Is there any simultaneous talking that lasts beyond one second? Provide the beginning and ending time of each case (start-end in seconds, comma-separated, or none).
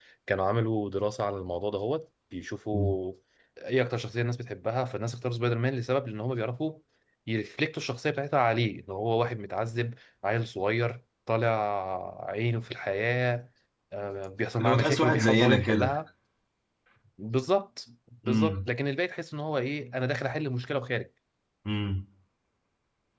14.6-15.9